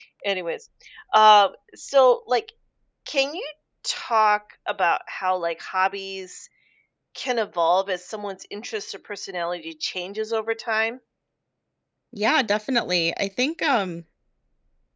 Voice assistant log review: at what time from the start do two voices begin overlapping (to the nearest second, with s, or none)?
none